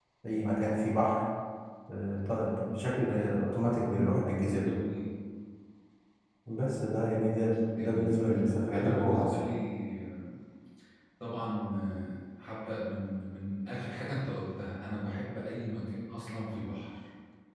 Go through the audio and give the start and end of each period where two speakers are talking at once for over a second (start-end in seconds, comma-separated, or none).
7.8-9.3